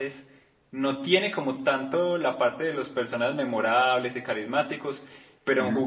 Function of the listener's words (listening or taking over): listening